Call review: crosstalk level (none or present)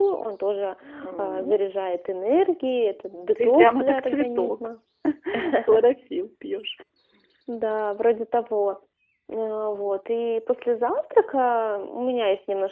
present